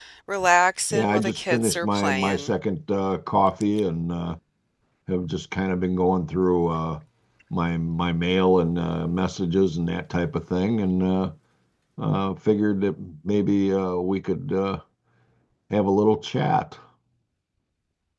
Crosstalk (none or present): present